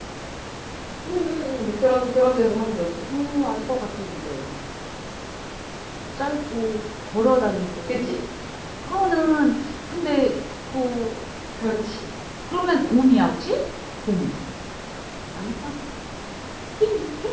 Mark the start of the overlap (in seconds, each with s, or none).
none